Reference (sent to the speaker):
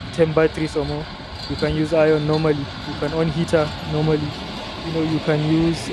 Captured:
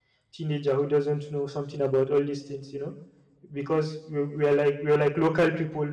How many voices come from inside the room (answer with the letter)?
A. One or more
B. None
A